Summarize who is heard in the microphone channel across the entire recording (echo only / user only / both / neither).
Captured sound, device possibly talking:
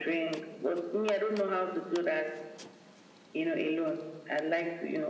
echo only